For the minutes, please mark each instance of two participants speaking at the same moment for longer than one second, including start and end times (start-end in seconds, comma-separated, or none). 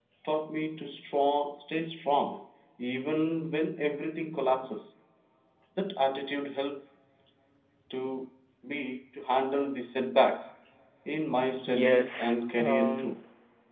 11.7-13.2